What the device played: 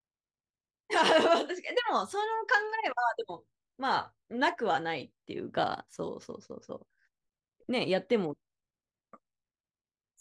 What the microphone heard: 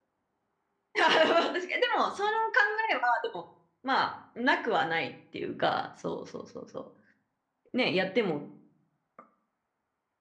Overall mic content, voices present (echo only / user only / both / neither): echo only